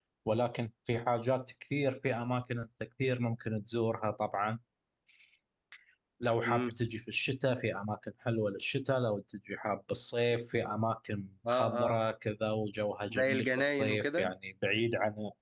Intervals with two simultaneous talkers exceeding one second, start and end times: 13.1-14.3

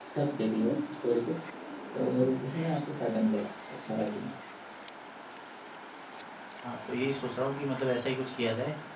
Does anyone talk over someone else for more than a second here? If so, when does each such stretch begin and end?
none

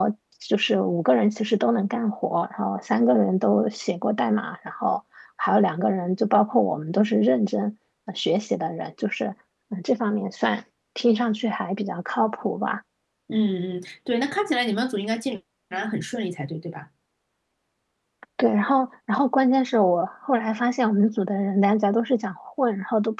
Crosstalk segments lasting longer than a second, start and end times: none

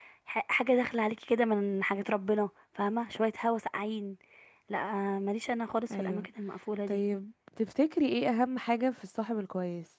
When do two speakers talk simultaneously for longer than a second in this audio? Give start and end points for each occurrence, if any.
none

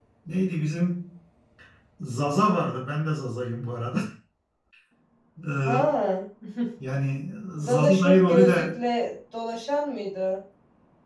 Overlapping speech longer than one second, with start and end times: 7.6-8.8

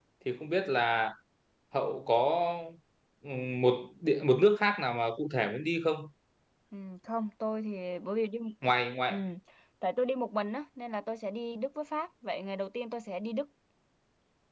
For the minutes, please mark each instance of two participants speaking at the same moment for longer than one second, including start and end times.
none

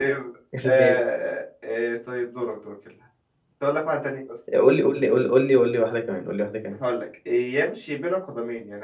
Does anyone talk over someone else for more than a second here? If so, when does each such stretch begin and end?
none

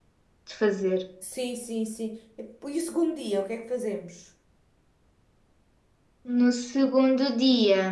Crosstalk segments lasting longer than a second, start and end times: none

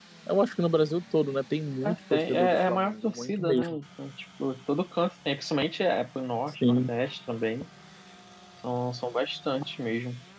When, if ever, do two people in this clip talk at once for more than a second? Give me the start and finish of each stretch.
1.8-3.8

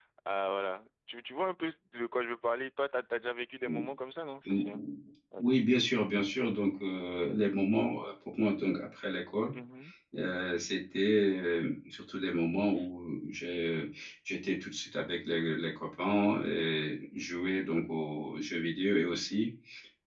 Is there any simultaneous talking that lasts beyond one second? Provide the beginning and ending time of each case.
none

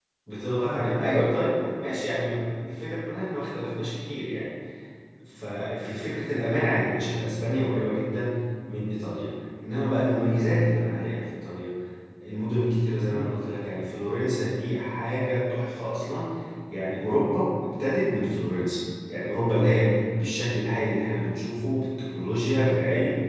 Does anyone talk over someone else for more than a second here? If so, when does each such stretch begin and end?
0.6-2.1

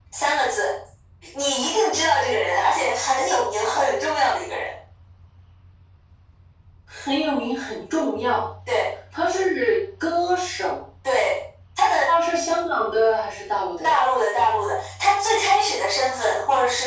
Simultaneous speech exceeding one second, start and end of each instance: none

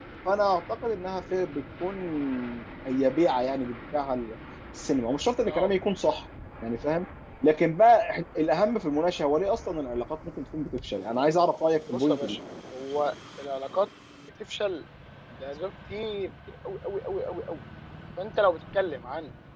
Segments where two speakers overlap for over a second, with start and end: none

